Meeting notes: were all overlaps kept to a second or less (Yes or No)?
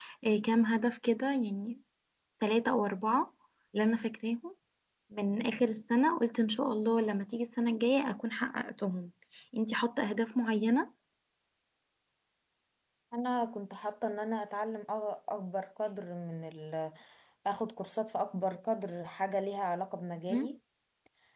Yes